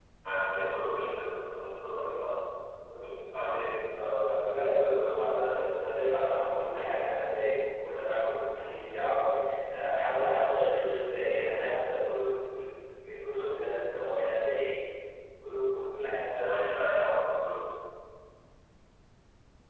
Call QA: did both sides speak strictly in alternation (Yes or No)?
Yes